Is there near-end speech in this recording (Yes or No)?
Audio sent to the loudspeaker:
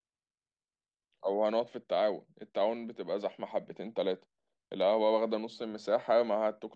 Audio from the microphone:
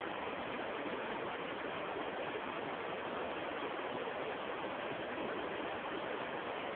No